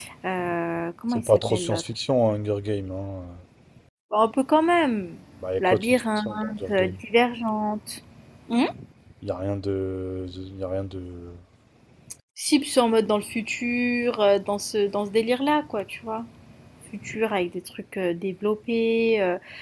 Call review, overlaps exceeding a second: present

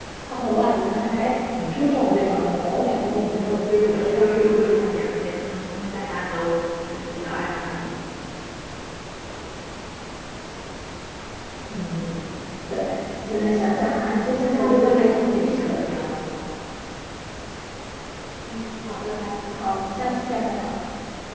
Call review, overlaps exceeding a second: present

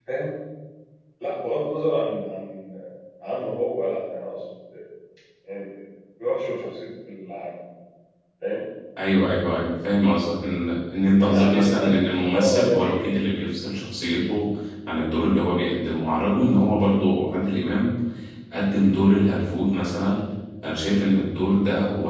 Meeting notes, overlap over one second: present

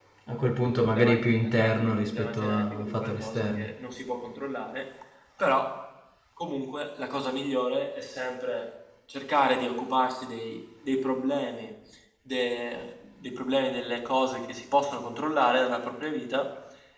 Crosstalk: present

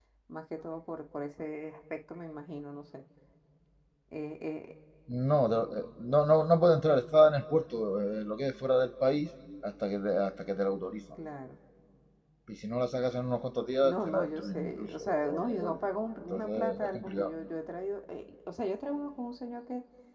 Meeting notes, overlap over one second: present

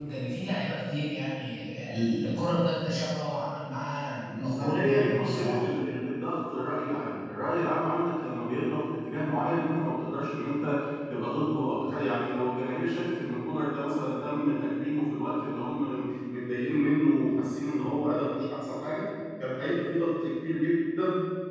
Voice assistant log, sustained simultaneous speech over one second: present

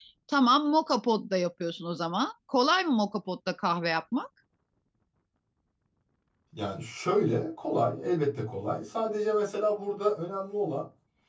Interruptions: none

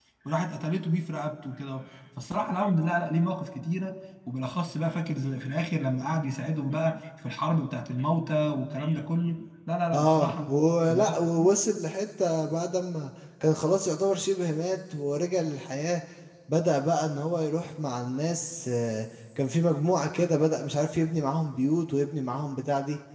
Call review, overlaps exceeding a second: none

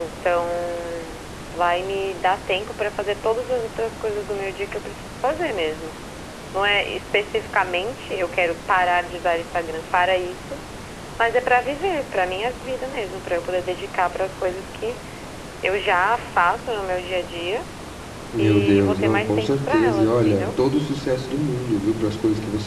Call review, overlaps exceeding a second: present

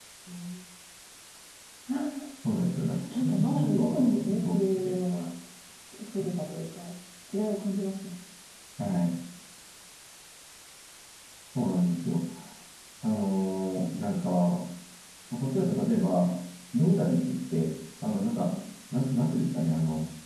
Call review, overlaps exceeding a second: present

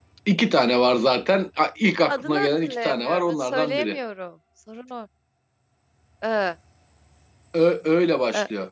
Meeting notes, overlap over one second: present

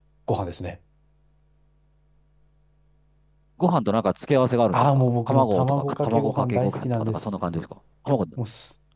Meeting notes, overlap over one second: present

